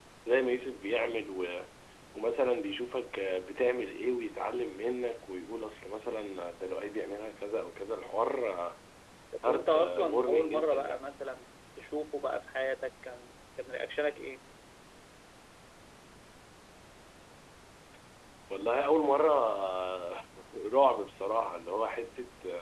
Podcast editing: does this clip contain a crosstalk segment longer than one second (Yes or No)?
Yes